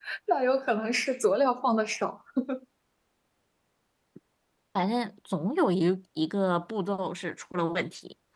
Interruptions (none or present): none